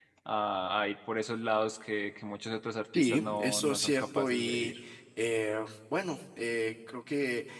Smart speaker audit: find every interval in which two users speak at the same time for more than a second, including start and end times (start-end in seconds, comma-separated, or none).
3.0-4.7